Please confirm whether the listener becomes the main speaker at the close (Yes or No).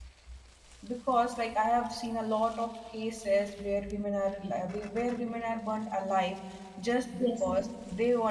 No